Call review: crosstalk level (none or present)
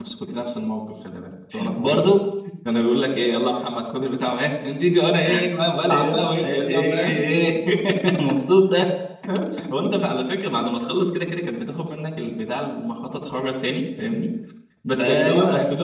present